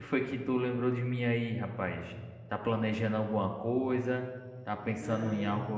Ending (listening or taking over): listening